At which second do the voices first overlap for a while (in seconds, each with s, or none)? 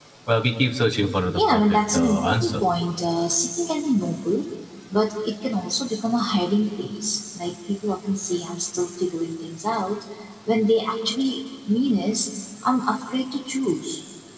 1.3 s